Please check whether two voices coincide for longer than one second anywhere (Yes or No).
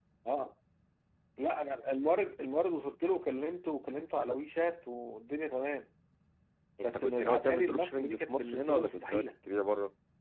Yes